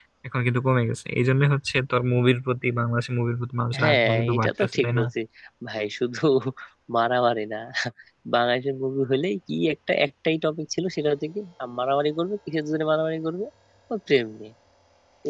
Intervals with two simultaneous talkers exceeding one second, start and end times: 3.8-5.0

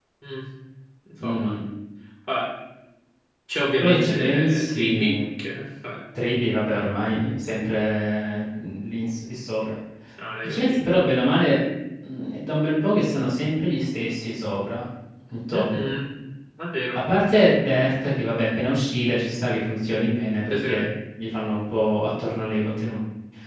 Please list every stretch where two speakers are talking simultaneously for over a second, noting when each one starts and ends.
3.8-5.1

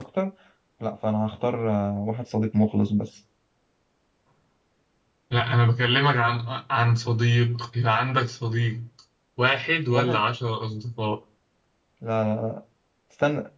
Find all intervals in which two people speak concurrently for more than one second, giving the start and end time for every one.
none

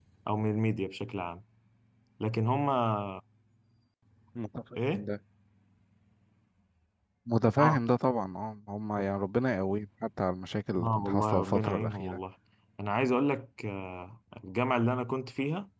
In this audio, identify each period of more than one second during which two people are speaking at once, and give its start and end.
10.8-12.2

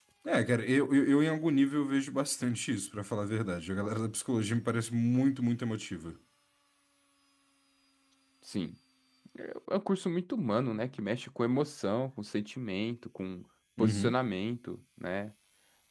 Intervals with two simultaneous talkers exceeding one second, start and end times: none

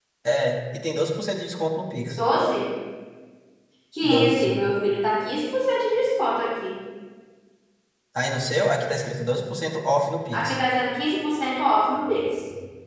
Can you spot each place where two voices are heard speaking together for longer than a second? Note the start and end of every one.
none

